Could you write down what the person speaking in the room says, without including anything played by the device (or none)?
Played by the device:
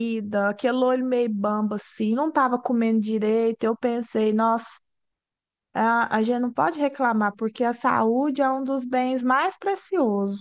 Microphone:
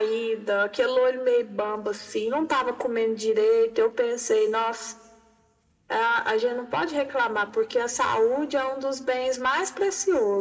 none